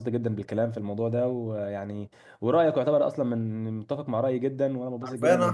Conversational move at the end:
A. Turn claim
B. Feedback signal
A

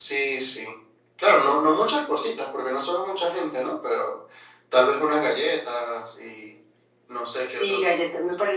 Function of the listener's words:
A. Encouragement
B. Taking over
B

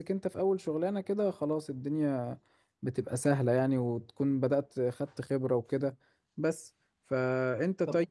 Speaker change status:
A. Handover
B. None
B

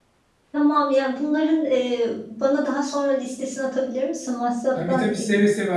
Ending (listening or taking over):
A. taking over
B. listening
A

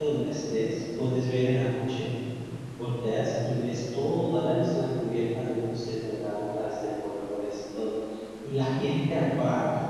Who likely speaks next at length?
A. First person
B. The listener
A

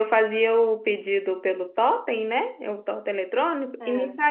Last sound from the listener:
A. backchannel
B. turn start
A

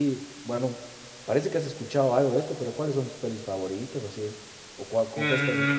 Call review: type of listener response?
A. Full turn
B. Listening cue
A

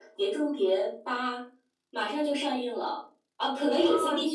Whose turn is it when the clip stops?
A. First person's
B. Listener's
A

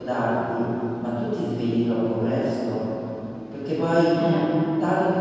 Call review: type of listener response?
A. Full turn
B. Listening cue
B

